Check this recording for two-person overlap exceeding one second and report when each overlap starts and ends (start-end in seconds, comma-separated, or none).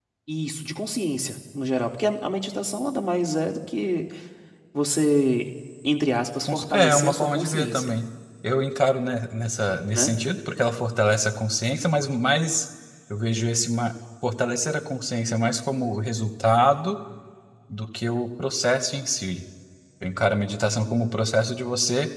6.4-8.0